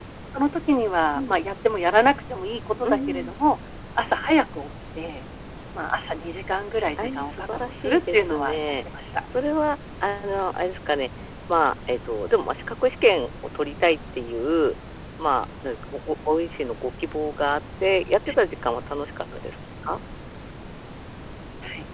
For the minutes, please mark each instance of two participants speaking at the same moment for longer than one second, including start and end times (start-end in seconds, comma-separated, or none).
7.0-8.6